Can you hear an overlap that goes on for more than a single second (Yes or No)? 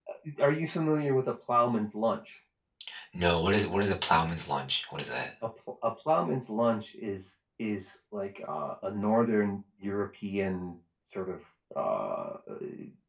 No